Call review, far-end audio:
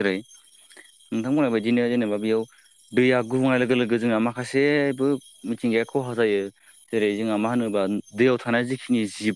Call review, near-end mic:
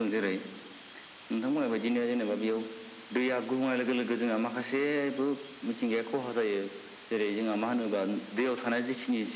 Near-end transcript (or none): none